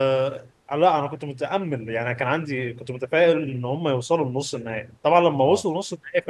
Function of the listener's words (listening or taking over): listening